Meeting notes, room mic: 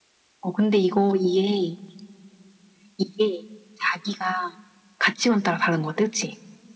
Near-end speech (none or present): none